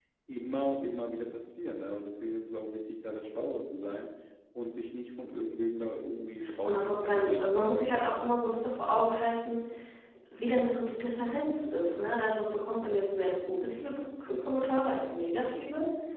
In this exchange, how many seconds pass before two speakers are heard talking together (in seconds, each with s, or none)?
6.4 s